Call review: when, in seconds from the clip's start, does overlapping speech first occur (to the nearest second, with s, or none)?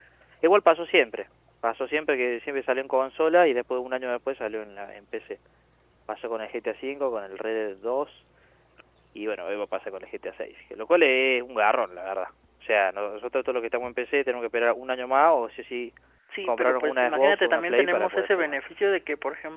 16 s